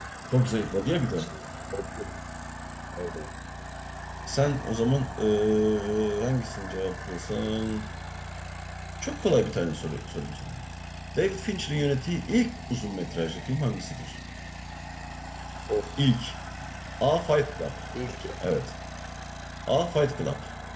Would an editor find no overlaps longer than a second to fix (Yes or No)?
Yes